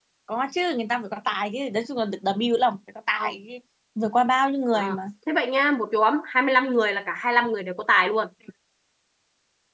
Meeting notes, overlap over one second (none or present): none